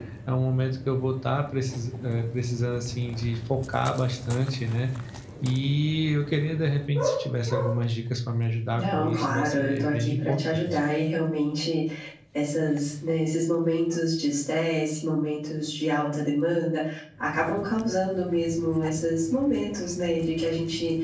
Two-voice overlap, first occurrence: 9 s

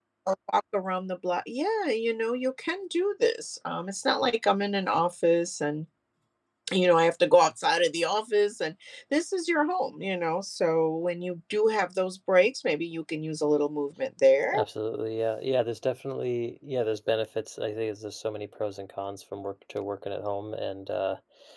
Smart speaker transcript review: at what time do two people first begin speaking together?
none

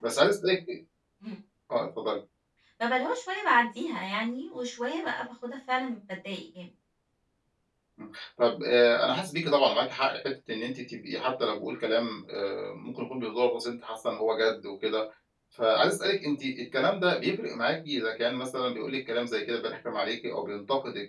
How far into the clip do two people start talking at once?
none

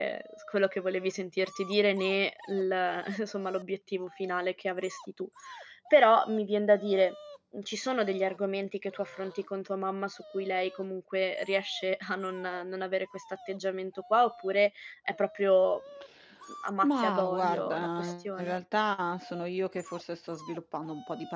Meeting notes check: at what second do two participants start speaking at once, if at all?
17 s

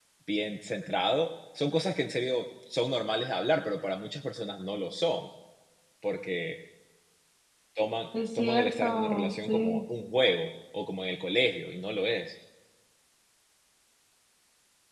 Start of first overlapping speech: 8 s

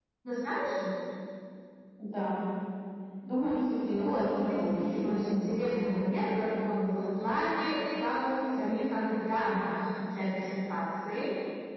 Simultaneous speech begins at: 4 s

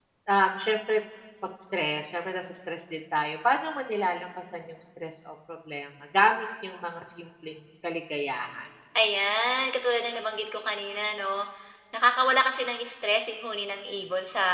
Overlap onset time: none

